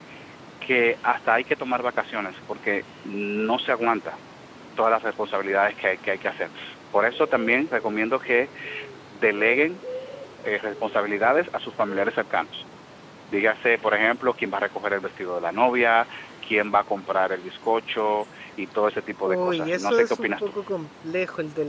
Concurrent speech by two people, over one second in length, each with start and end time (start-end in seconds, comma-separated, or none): 19.2-20.5